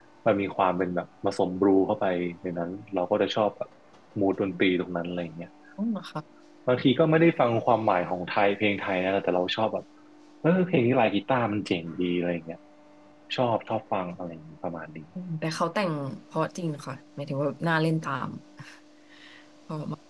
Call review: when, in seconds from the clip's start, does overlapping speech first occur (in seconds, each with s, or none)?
none